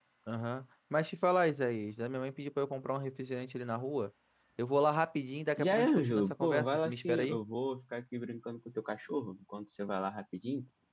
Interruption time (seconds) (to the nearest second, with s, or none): 6 s